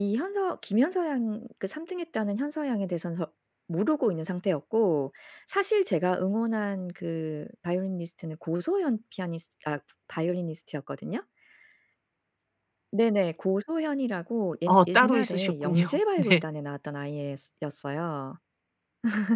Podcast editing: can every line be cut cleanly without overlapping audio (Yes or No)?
No